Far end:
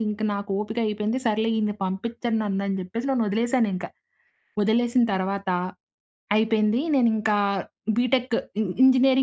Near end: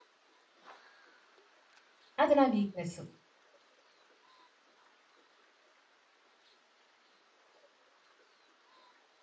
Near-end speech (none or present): present